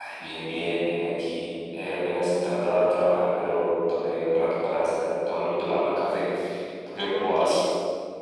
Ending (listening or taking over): taking over